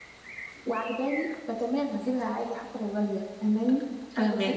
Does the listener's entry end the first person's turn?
No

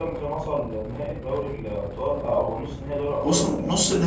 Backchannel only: No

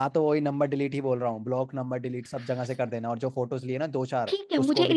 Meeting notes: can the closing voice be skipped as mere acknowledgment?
No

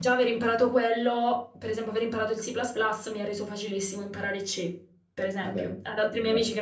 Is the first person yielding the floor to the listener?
No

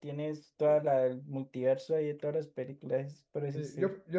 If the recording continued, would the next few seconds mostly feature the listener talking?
Yes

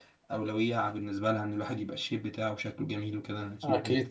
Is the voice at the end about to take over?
Yes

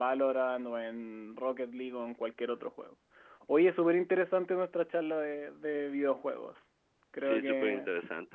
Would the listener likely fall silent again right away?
No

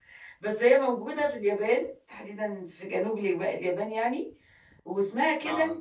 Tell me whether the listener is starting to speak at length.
No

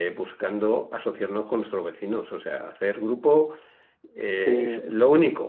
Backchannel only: Yes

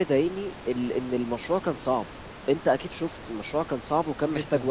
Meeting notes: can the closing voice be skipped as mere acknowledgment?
No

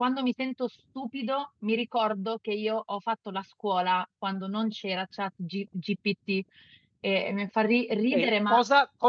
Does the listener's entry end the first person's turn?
Yes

